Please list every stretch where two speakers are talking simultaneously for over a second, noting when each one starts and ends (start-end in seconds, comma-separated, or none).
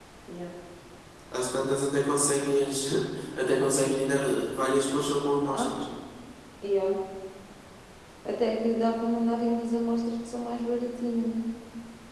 none